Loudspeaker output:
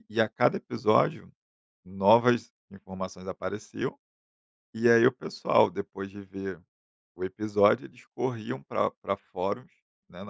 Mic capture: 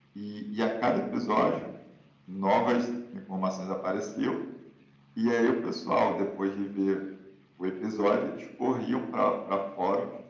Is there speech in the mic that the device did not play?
No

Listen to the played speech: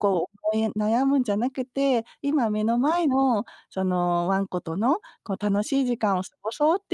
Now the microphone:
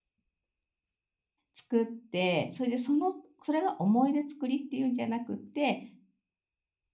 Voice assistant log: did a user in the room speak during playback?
Yes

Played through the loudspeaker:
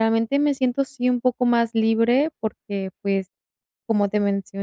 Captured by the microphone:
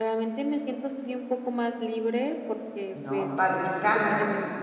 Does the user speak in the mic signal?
Yes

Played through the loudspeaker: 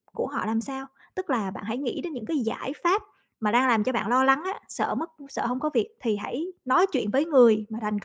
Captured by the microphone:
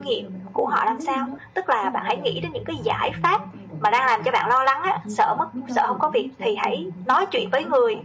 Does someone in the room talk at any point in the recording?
Yes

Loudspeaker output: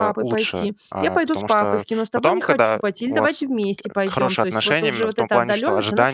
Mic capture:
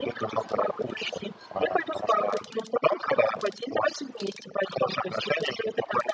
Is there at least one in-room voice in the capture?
No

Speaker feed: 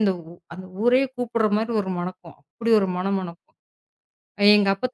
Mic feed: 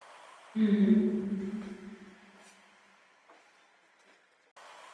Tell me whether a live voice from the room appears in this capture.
Yes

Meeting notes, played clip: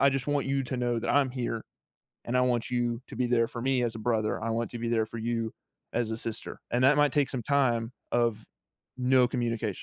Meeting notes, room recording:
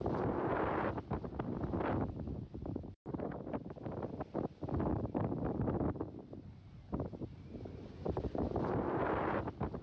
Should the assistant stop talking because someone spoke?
No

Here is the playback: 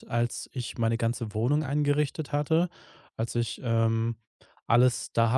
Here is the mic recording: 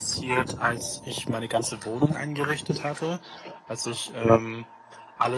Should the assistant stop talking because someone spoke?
No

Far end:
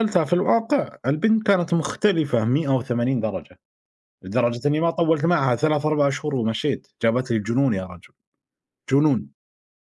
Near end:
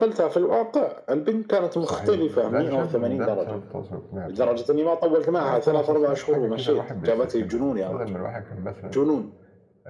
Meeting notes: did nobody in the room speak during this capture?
No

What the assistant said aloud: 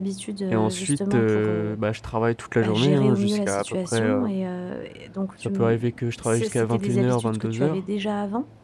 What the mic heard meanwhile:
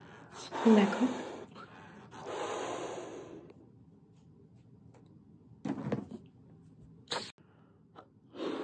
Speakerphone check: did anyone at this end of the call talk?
Yes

